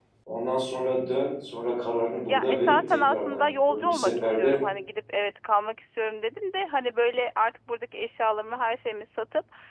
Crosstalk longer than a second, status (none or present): present